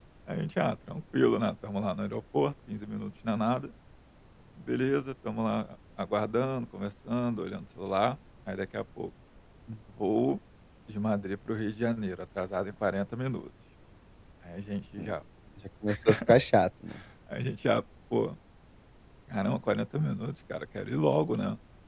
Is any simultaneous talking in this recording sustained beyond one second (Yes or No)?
No